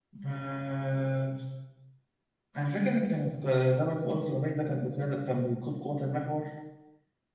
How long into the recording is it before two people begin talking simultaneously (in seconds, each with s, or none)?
none